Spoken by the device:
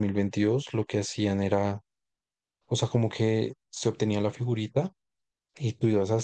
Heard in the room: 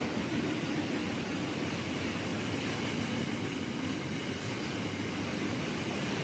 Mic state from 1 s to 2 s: neither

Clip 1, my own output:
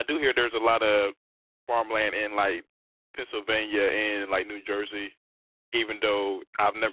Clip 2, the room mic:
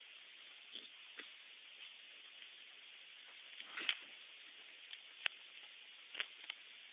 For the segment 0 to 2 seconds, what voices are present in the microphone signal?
neither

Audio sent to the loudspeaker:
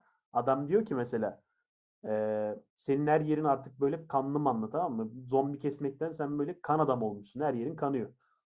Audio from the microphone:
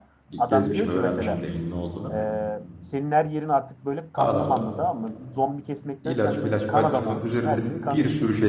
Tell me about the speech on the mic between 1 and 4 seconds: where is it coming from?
both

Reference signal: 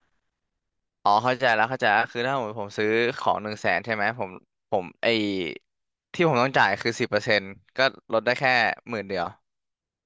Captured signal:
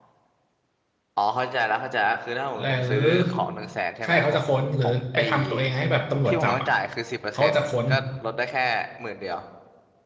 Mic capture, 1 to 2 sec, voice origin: echo only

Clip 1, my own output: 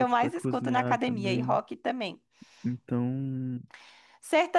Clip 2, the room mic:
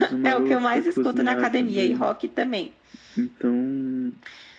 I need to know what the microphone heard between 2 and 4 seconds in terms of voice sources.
echo only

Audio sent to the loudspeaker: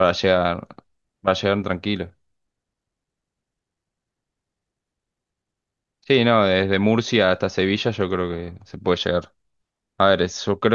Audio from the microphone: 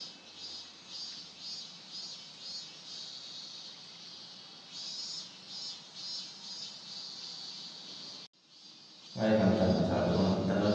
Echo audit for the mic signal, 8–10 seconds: user only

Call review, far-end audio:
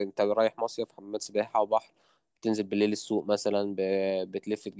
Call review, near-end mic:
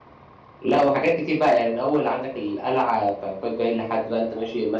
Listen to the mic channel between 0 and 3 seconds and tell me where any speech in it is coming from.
user only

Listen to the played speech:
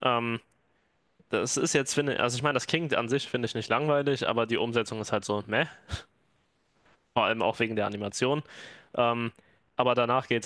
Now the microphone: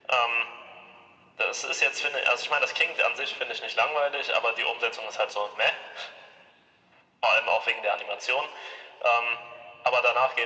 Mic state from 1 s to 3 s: echo only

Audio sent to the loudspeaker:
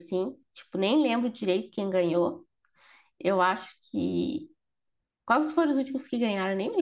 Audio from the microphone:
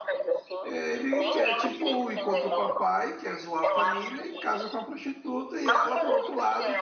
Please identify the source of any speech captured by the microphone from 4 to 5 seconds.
both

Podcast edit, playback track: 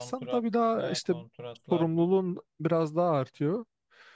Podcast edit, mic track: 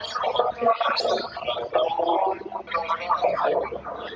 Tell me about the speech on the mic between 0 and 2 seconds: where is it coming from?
echo only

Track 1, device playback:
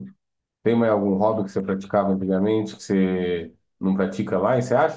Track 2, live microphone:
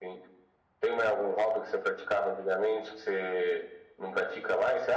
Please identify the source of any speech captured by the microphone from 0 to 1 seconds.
echo only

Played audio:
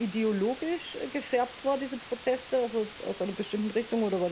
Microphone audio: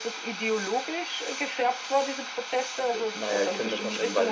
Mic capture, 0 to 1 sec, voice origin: echo only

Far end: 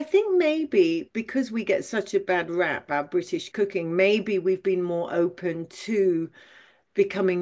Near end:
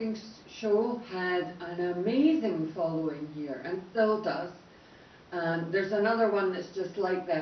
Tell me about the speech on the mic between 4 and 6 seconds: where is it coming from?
user only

